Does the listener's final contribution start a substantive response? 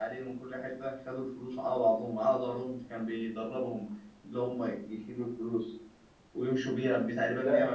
No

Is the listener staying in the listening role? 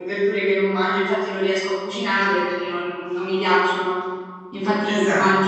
Yes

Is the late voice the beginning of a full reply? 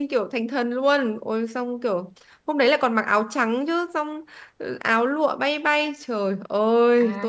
Yes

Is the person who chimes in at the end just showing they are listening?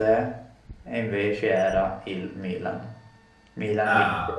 Yes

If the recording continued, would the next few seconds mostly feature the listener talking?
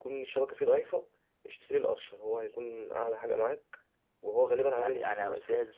Yes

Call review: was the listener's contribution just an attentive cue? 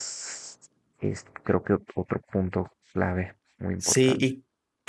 No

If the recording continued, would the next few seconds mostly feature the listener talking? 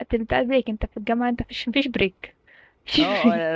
Yes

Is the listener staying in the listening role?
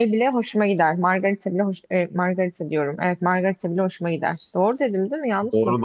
No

